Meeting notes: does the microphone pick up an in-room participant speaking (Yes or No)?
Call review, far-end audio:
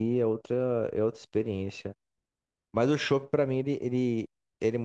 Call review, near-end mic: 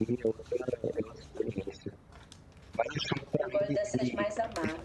Yes